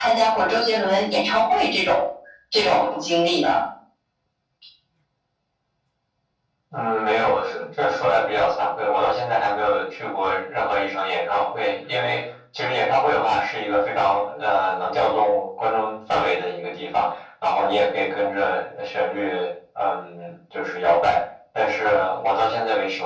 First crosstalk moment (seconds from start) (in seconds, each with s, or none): none